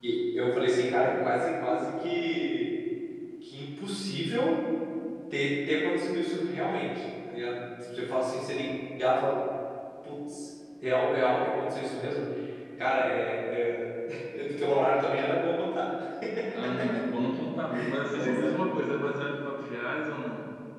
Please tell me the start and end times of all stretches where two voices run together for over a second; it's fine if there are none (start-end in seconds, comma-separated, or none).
none